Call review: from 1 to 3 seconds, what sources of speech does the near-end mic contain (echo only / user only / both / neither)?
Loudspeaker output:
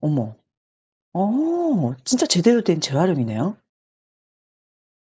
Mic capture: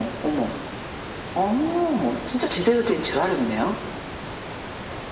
echo only